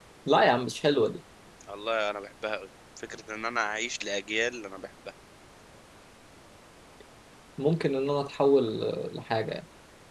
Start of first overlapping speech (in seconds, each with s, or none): none